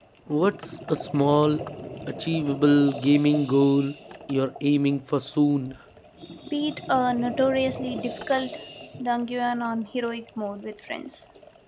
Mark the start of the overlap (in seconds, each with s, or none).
none